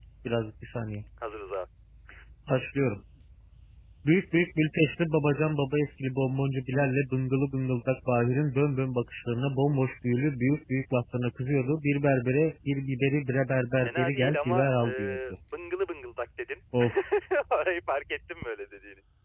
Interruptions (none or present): present